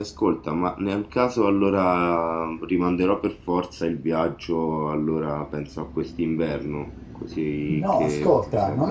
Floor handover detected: Yes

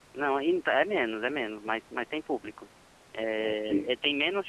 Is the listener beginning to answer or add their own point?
No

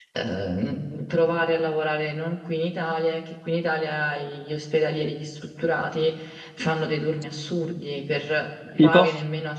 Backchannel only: Yes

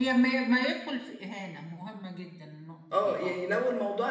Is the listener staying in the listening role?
No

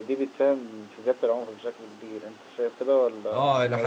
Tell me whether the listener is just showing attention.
No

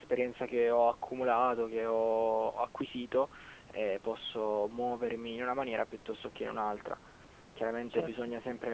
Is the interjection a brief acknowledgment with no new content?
Yes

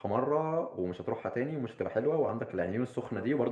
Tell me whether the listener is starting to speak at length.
No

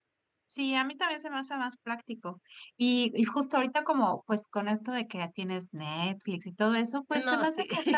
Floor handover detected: No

